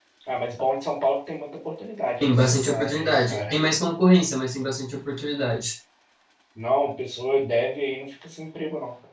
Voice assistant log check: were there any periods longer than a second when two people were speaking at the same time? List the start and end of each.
2.2-3.5

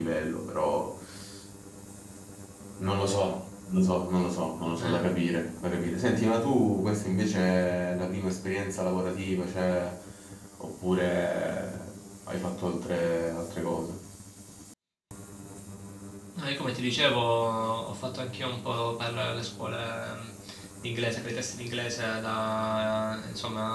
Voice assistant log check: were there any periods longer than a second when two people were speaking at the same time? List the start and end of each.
none

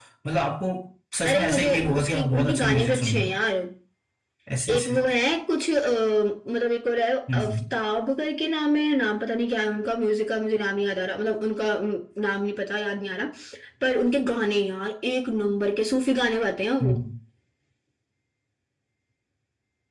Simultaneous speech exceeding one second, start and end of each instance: 1.3-3.3

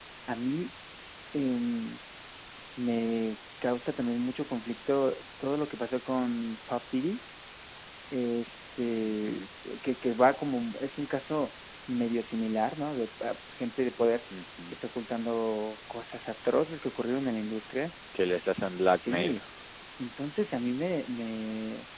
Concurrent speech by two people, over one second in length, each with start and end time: none

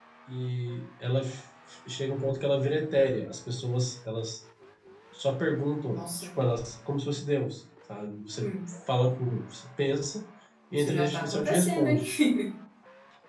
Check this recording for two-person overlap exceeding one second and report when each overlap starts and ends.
10.8-12.0

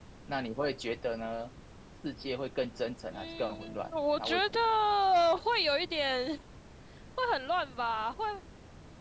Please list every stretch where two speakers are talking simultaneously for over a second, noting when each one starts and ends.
3.1-4.6

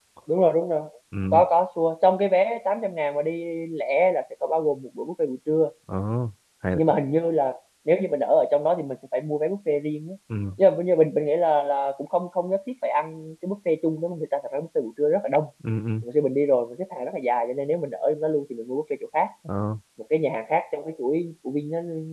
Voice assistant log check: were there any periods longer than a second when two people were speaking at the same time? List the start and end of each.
none

